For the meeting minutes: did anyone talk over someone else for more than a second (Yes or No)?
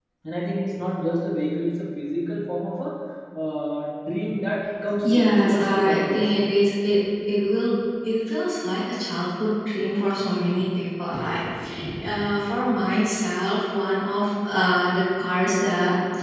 Yes